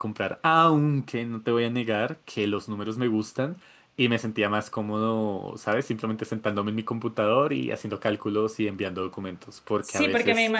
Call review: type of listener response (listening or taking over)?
taking over